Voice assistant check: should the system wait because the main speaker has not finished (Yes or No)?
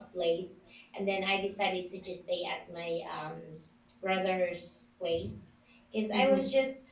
Yes